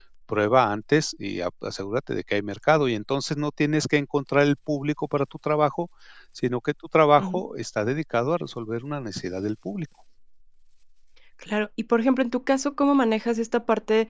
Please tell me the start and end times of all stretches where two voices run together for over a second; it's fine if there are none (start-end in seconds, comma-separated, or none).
none